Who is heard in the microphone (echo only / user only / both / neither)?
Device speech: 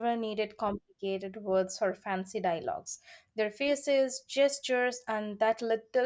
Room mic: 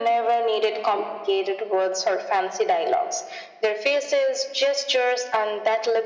echo only